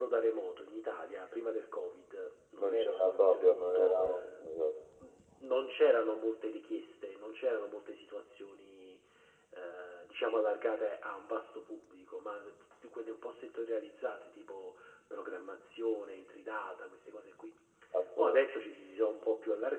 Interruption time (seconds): 2.6 s

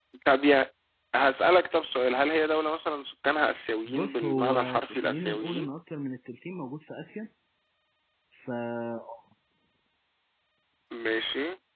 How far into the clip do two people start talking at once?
3.9 s

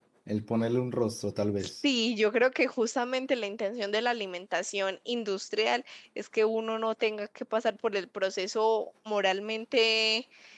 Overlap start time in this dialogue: none

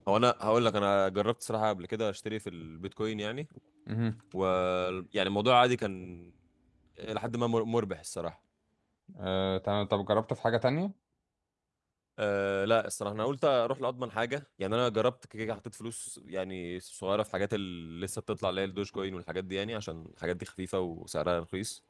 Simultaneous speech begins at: none

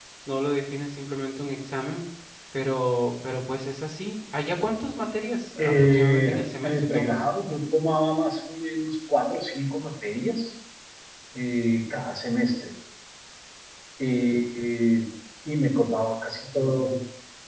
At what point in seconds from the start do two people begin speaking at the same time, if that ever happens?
5.6 s

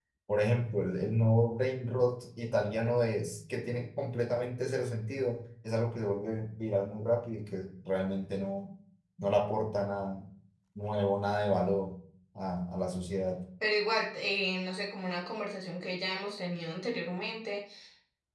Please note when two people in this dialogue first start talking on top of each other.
none

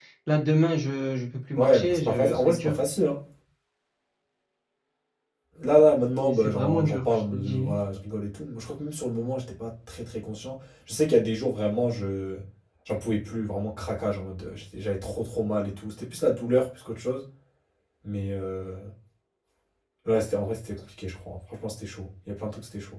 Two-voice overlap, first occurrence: 1.6 s

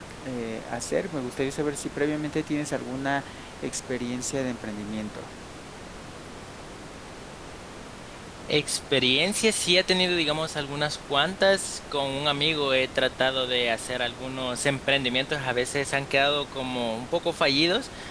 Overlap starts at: none

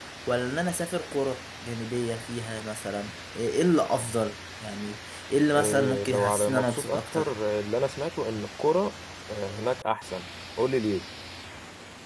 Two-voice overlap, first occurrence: 5.5 s

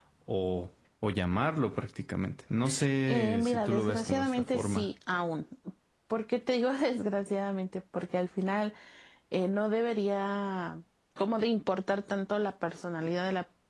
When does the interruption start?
3.1 s

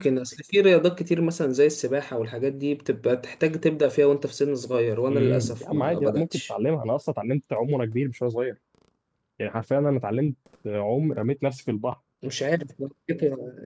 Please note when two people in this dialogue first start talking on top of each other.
5.1 s

